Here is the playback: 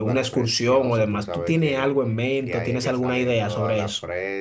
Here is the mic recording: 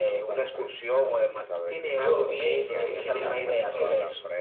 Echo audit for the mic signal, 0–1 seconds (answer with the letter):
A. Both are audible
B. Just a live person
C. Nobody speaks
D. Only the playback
D